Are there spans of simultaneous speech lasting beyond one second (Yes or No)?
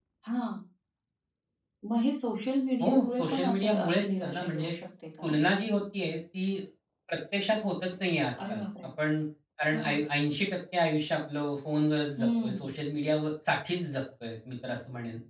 Yes